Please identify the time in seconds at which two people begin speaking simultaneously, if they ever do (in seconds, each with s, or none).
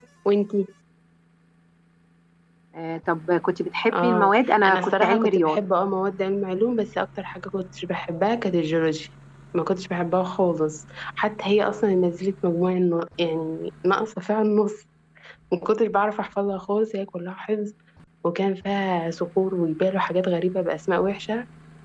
3.9 s